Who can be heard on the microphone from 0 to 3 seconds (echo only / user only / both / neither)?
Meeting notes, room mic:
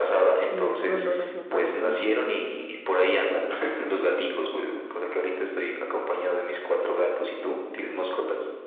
both